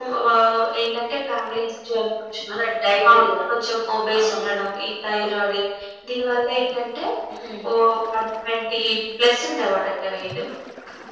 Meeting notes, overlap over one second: none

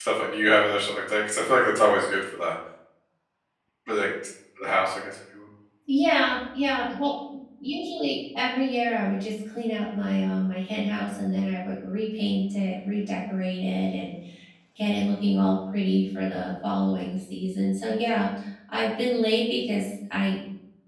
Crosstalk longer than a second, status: none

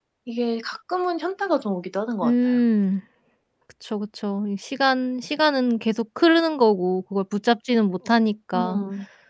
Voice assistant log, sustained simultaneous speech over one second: none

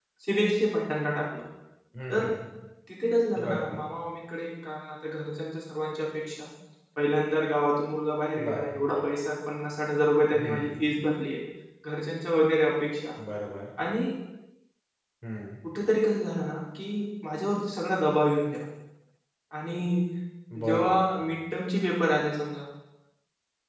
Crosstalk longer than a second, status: none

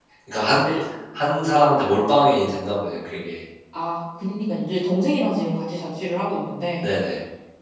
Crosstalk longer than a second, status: none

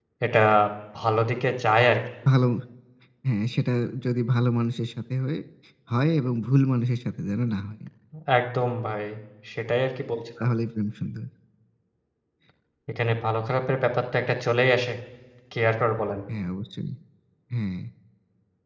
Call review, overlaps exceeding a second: none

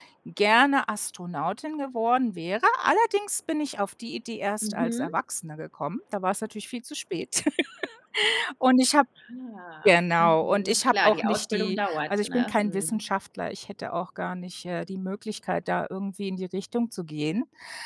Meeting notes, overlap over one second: present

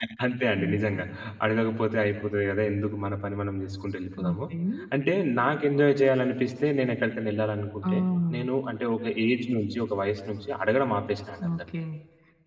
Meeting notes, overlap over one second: none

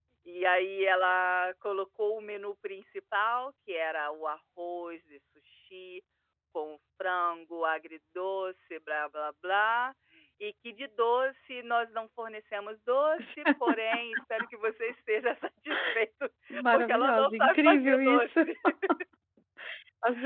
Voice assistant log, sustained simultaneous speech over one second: present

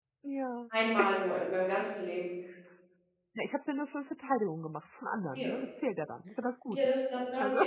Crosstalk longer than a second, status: none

